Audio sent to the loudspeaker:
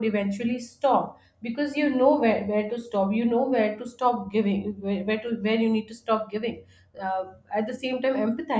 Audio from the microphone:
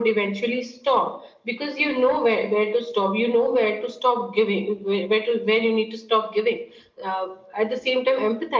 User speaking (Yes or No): No